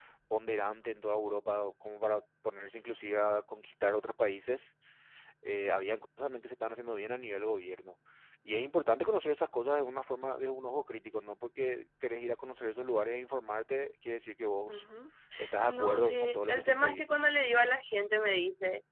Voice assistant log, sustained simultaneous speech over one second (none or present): present